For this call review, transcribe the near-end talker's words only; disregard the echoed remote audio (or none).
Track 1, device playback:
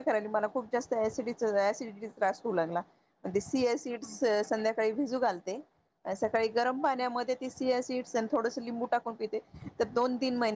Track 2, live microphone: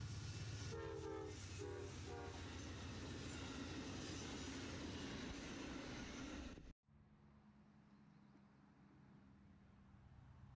none